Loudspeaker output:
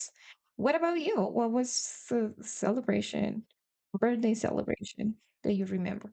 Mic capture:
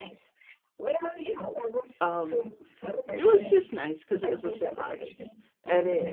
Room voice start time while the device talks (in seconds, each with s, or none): 2.0 s